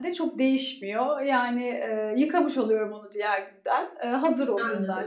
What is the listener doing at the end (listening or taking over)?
listening